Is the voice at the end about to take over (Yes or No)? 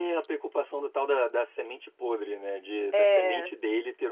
No